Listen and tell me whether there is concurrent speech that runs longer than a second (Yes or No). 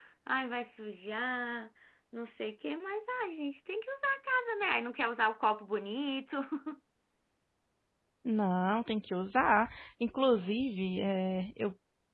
No